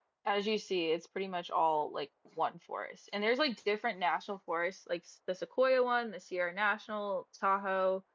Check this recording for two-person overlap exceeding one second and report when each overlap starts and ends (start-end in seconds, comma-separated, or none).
none